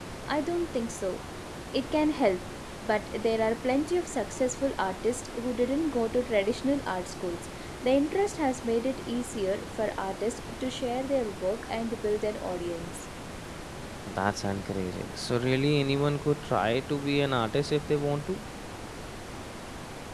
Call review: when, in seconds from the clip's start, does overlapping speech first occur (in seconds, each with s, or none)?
none